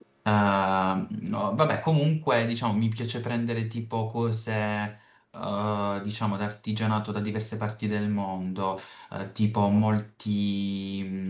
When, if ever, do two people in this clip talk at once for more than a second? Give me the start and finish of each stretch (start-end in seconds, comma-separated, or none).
none